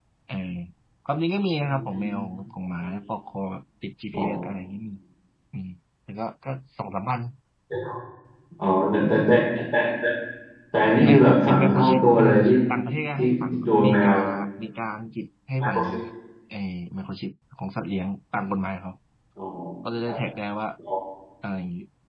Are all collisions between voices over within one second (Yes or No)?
No